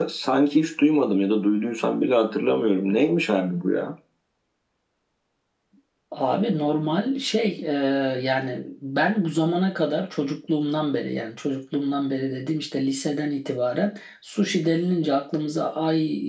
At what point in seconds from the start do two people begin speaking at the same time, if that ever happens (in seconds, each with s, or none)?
none